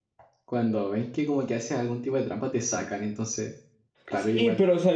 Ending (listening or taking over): taking over